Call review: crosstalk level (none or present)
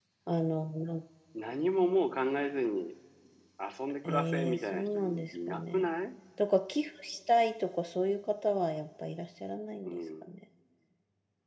present